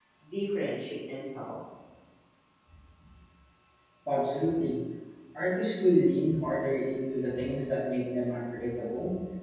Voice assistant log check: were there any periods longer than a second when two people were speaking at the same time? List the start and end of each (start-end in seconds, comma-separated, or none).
none